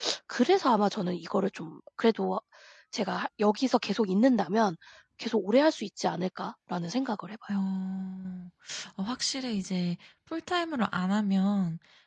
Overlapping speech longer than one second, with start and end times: none

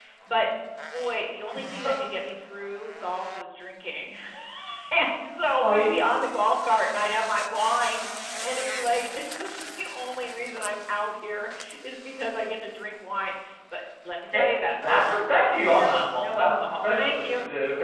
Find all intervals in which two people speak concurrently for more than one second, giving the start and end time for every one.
14.8-17.2

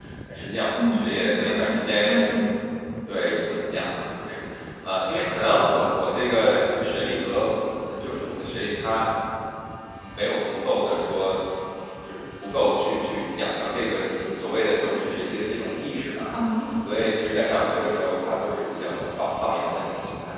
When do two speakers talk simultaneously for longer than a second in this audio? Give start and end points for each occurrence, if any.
0.8-2.3

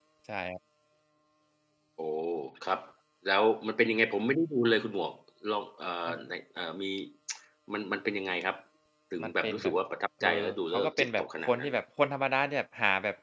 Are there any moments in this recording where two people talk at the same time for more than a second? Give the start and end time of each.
10.2-11.7

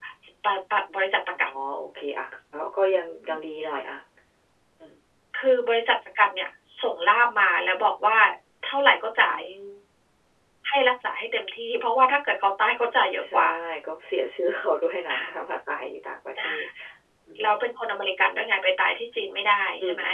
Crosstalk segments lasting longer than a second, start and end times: none

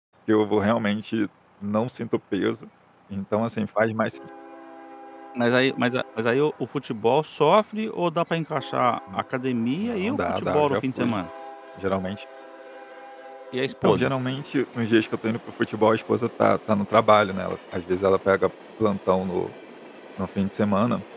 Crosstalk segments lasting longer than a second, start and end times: 9.8-11.2

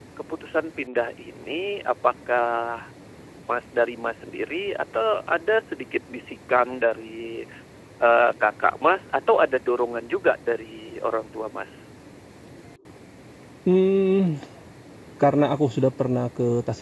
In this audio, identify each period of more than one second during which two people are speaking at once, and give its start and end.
none

